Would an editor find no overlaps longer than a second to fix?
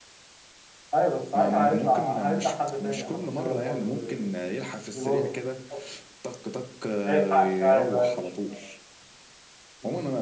No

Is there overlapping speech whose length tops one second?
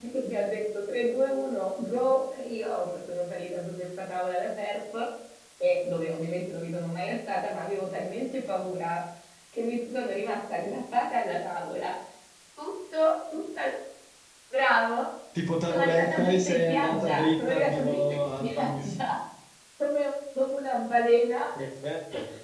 Yes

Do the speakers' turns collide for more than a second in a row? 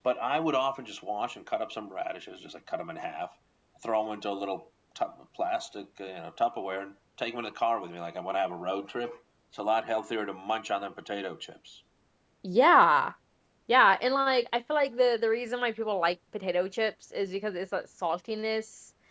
No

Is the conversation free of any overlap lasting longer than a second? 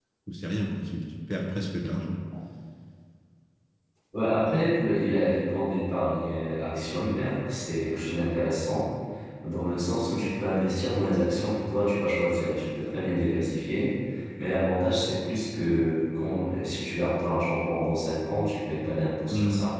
Yes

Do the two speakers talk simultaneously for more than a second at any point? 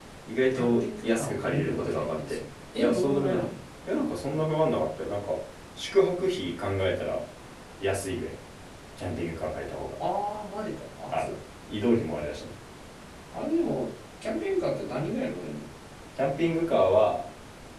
Yes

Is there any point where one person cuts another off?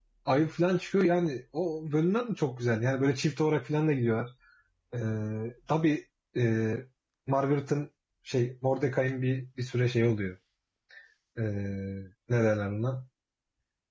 No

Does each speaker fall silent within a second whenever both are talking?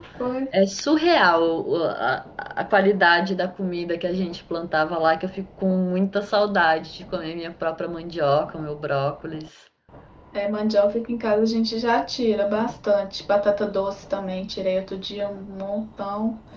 Yes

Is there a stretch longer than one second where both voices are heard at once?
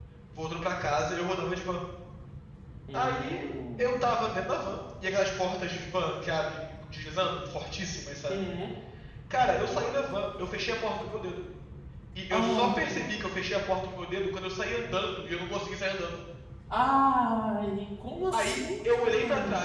Yes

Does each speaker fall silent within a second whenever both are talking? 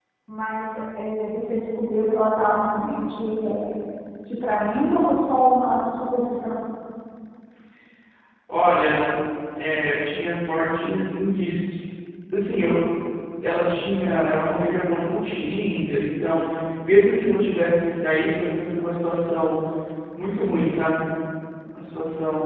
Yes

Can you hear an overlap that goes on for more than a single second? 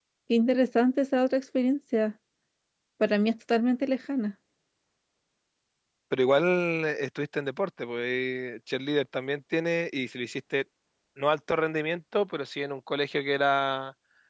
No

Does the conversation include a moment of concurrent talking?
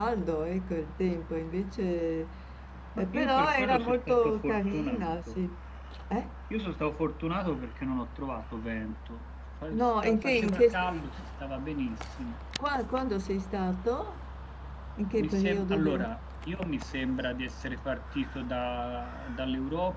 Yes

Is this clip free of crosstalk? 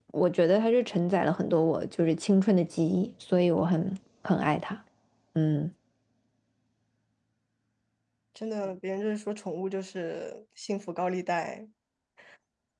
Yes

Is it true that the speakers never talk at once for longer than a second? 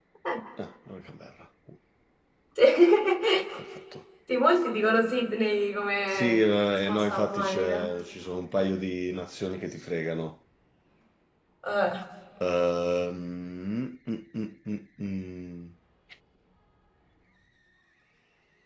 No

